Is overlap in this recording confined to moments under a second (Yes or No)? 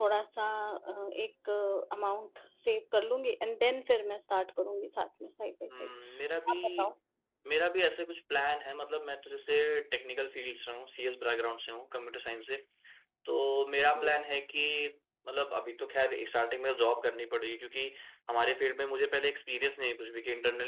Yes